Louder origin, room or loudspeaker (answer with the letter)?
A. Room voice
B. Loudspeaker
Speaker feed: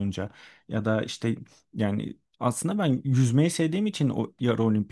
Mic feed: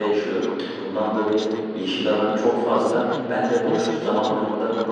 A